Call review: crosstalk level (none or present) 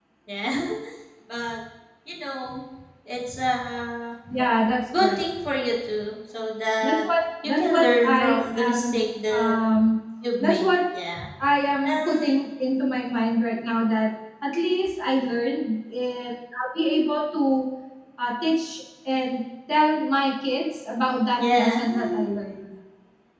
present